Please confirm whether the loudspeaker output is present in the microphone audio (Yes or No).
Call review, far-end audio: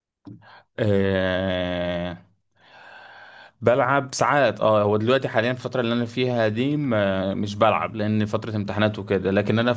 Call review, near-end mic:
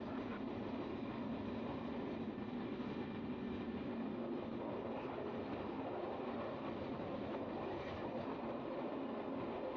No